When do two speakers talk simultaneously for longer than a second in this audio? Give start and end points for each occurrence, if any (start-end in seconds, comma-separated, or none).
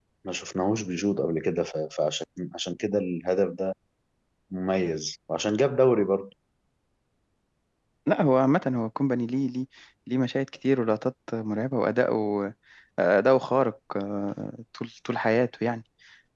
none